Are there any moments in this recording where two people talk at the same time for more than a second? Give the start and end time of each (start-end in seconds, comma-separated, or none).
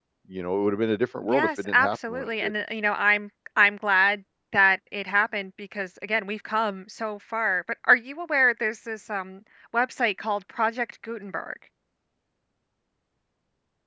1.2-2.5